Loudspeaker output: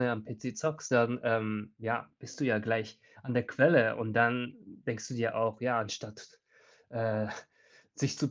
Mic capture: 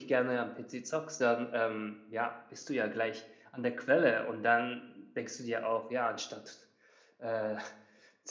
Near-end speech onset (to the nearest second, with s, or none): none